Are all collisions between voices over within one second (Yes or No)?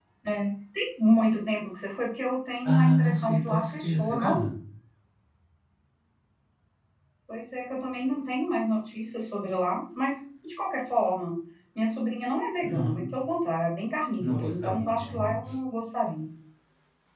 No